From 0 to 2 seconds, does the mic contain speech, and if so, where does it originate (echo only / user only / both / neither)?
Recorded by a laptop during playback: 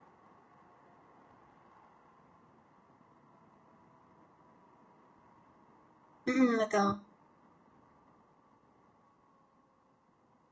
neither